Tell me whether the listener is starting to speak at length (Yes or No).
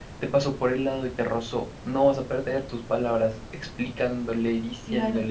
Yes